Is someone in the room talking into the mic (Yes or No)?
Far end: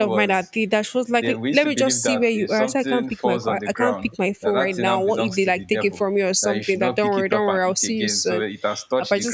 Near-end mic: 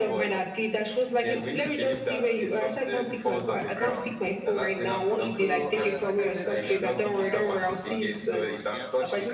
Yes